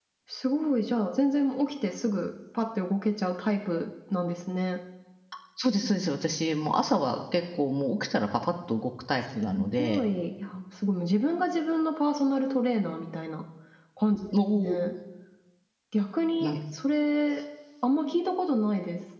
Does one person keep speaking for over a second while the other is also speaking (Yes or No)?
No